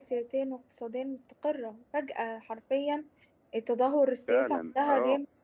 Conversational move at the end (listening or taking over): taking over